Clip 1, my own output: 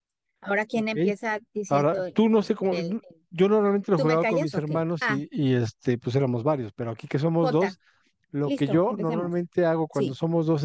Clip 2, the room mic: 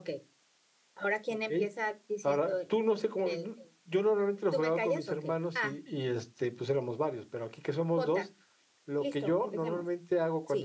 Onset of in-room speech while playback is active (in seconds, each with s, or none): none